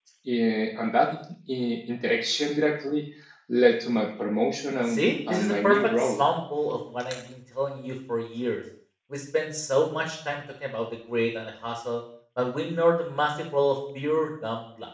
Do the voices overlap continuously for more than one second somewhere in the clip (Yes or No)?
Yes